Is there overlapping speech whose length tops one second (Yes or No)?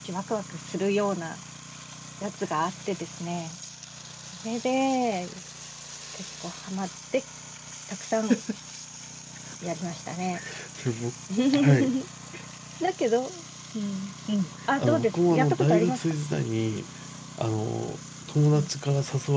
Yes